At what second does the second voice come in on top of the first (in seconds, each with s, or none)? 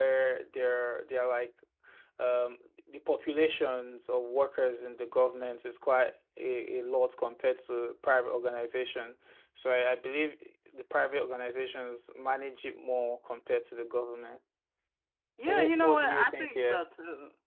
15.5 s